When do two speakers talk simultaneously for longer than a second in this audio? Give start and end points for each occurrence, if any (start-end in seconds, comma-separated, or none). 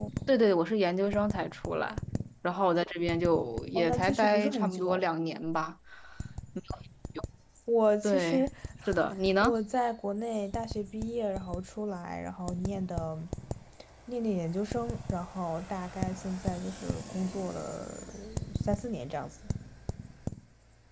3.8-5.1